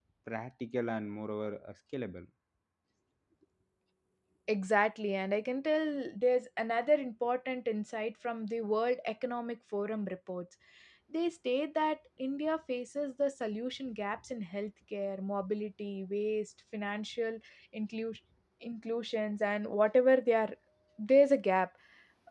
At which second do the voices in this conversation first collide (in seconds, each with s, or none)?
none